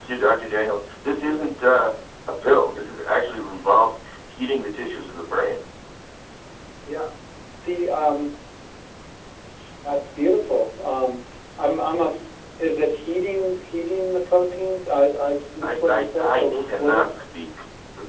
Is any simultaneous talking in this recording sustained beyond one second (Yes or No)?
Yes